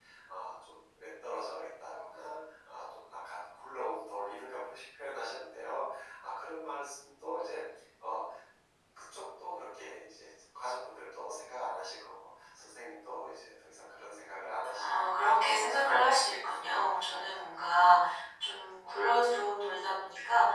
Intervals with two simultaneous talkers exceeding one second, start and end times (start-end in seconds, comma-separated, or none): 14.8-17.6